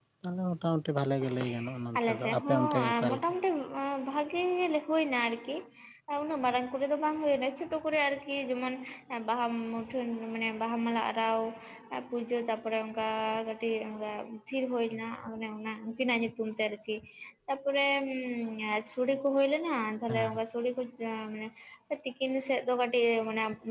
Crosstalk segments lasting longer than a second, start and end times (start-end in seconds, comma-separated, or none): 2.0-3.2